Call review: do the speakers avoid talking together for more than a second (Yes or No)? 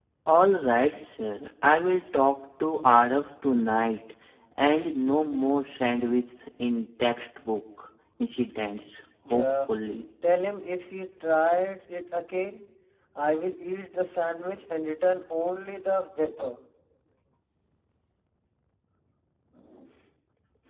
Yes